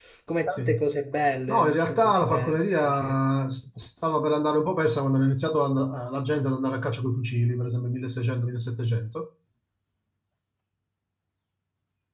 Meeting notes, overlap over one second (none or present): present